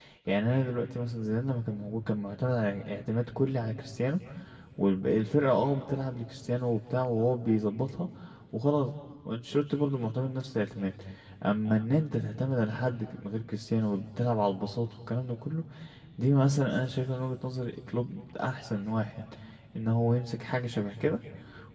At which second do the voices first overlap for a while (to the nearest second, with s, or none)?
none